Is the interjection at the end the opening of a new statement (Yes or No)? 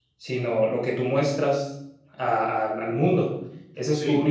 No